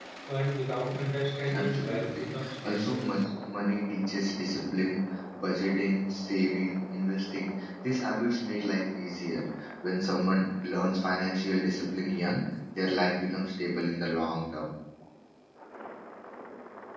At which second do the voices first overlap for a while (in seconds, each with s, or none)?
1.5 s